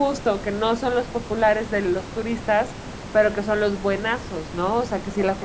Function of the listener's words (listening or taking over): listening